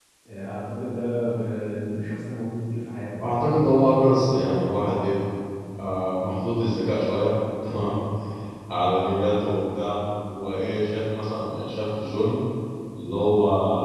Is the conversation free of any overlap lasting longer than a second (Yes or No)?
Yes